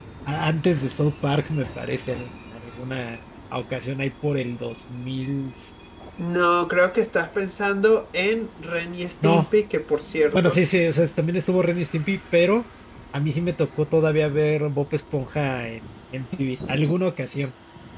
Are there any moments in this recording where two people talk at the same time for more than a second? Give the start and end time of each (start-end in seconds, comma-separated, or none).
none